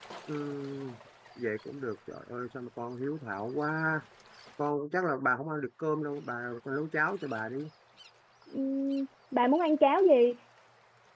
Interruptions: none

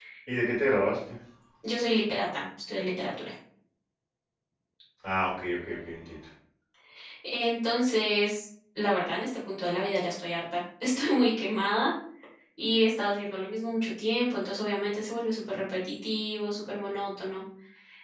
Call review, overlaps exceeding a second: none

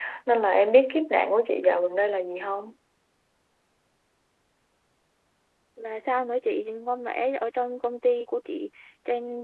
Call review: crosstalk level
none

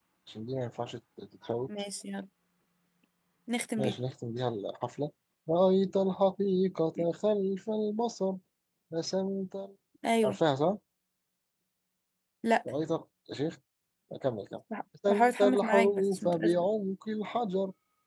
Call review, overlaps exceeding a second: present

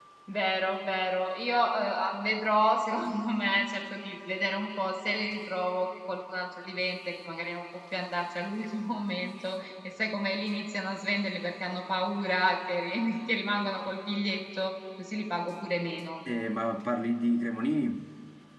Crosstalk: none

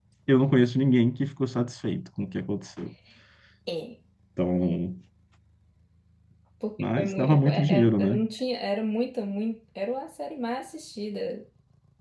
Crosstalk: present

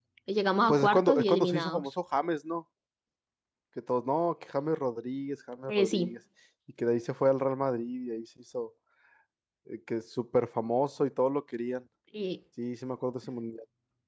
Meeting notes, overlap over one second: present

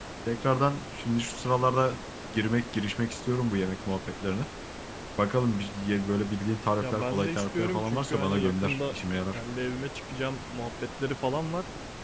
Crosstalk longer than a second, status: present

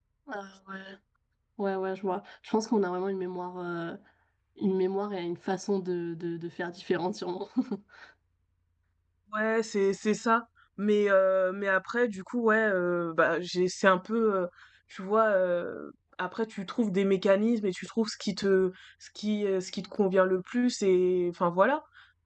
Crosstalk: none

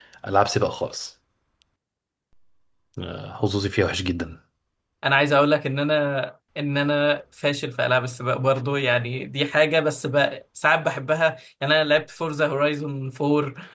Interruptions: none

